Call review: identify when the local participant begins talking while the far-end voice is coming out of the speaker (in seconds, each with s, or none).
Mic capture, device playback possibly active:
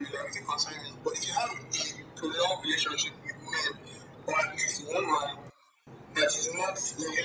none